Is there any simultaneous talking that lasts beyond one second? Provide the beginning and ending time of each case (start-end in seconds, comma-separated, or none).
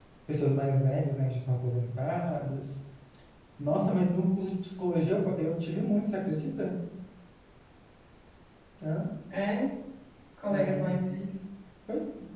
none